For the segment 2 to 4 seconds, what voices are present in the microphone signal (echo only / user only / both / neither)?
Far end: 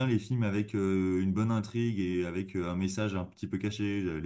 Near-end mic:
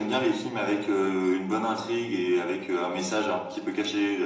echo only